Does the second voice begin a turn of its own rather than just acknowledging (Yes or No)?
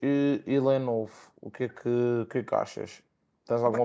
Yes